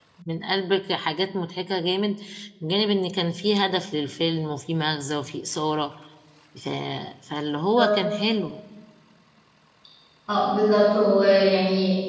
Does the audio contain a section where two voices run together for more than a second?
No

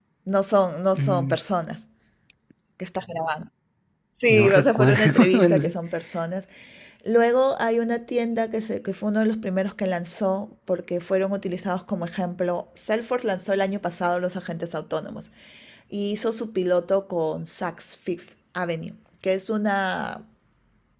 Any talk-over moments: Yes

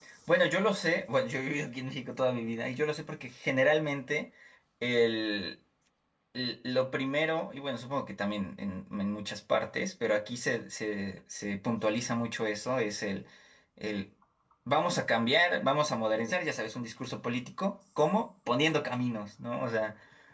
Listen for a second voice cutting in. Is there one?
No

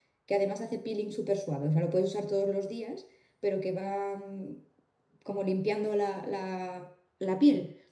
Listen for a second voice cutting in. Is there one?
No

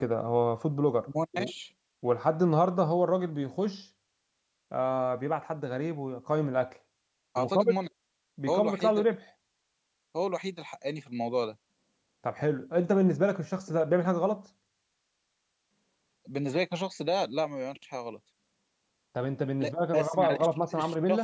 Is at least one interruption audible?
Yes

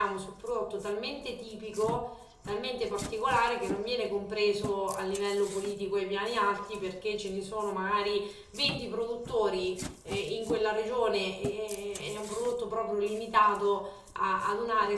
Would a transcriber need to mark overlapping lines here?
No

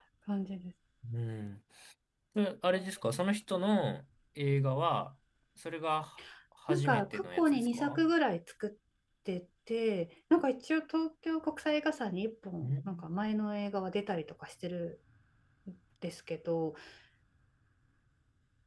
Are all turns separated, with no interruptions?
No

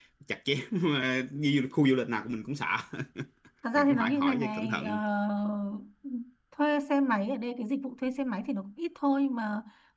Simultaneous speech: Yes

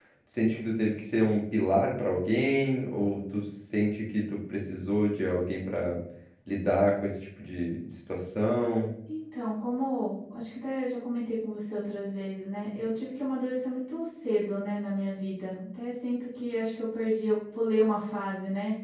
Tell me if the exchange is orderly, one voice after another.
Yes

